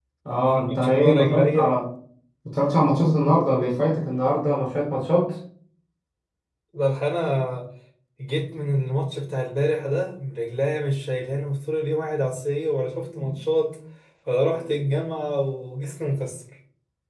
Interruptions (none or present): present